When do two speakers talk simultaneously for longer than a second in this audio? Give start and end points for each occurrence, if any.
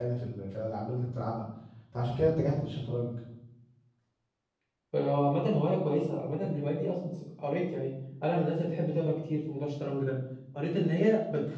none

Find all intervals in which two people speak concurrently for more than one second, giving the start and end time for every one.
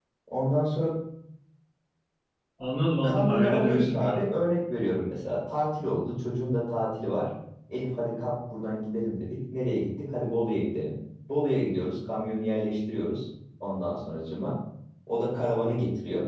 3.0-4.2

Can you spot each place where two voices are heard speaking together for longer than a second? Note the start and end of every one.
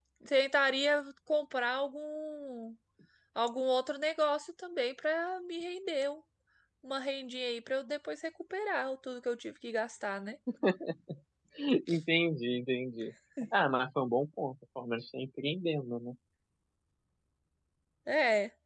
none

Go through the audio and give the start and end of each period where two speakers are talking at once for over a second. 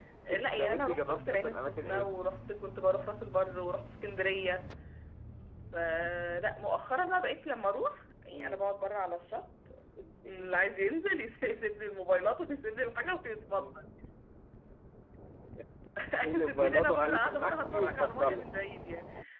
0.6-2.1, 16.4-18.4

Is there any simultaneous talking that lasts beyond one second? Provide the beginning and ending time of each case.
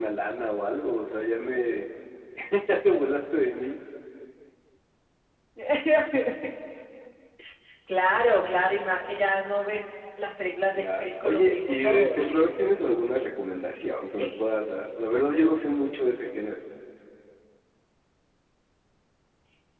10.8-12.2

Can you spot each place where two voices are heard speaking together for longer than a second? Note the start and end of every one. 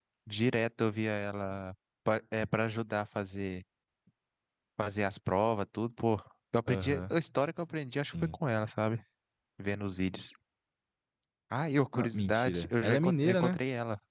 11.9-13.6

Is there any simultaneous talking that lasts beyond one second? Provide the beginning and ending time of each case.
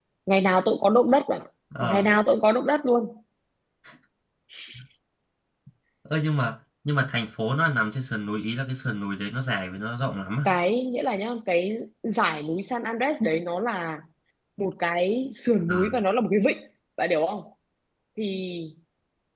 none

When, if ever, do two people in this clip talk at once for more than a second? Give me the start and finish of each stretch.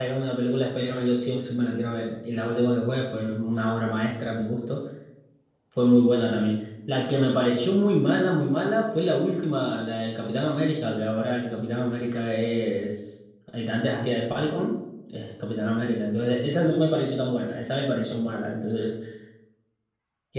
none

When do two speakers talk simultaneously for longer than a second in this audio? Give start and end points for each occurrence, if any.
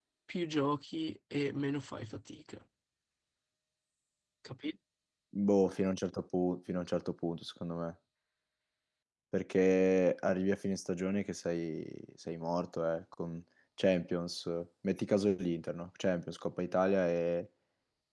none

